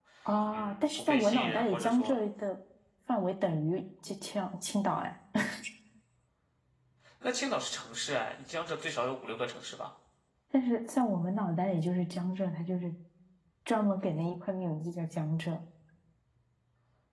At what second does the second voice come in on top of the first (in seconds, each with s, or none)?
0.5 s